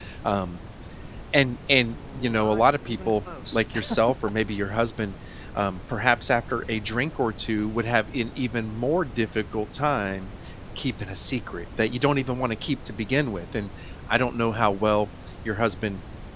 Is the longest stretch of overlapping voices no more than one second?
No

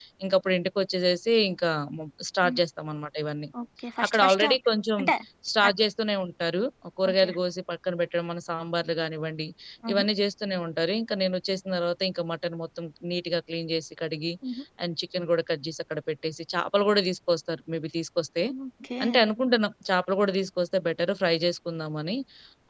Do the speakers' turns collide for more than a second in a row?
No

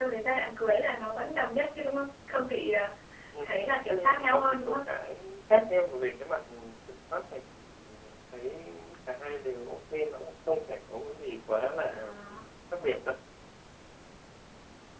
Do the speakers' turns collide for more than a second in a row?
Yes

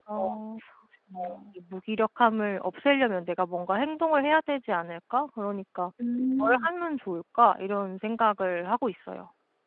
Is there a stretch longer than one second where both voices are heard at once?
No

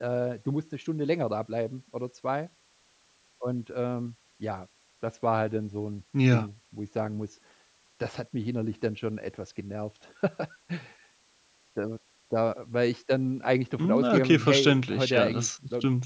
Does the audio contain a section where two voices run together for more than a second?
Yes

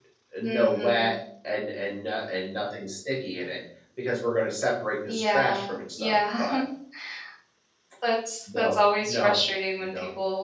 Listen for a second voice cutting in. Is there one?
Yes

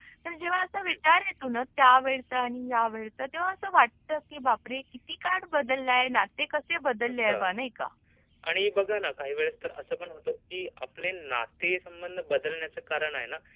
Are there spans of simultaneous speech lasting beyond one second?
No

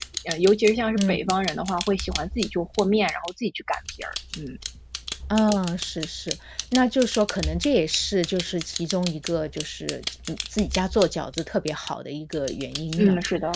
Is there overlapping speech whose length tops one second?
No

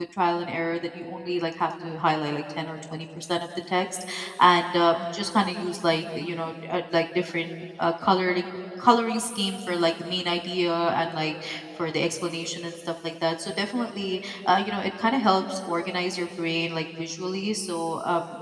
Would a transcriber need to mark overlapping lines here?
No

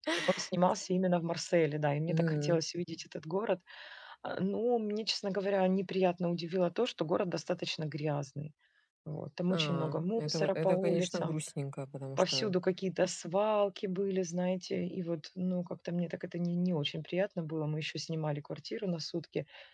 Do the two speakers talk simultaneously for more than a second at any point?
Yes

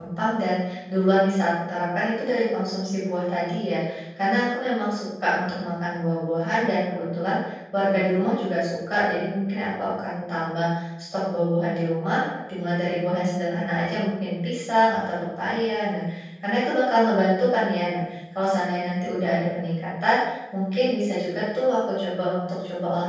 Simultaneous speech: No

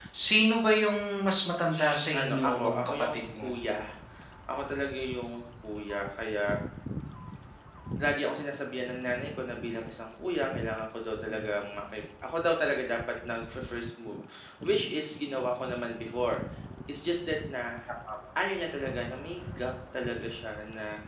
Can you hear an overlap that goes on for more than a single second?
Yes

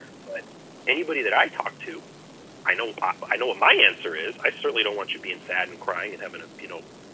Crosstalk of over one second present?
No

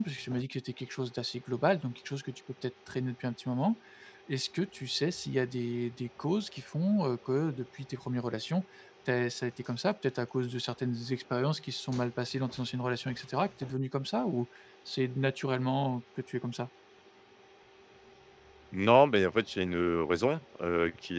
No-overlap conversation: Yes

